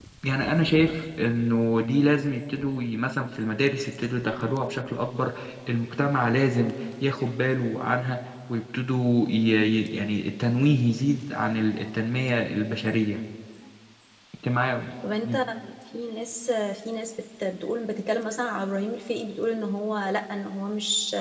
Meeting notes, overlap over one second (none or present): none